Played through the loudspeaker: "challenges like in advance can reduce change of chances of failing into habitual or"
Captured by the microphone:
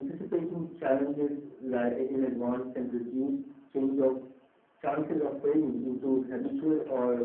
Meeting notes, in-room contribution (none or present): none